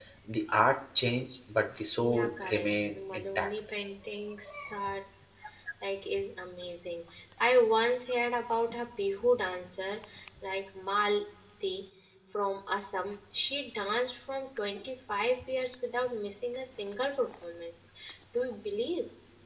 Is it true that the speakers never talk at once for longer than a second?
No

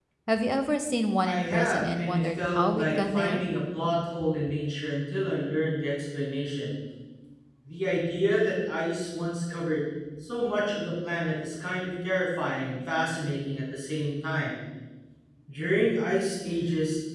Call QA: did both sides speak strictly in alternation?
No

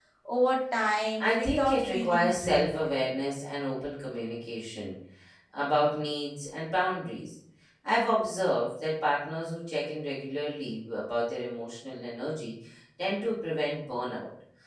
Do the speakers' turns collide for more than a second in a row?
Yes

